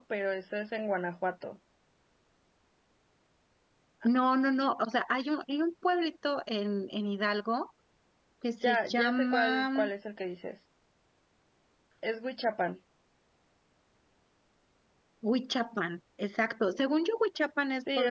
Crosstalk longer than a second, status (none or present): present